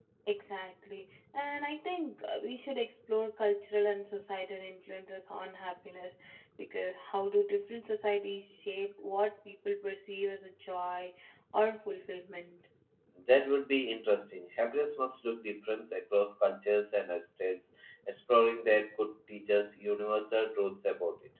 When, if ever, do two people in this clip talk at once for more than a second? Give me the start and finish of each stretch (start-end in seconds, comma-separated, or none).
none